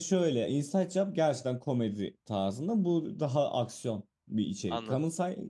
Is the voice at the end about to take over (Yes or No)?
No